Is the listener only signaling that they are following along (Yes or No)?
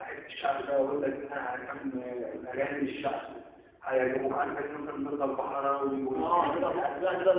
No